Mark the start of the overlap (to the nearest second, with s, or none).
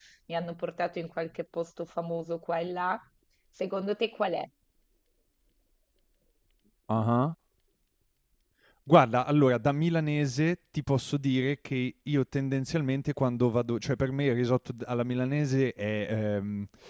none